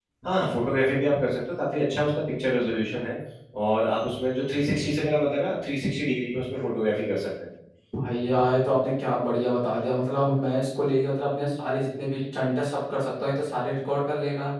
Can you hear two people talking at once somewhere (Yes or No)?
No